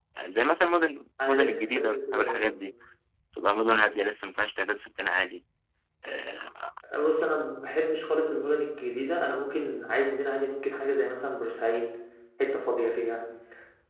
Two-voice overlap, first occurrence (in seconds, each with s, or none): 1.2 s